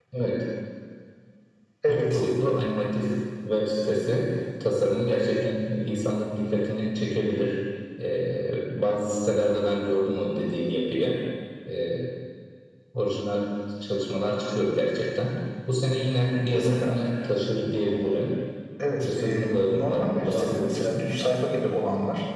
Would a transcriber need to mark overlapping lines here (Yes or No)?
Yes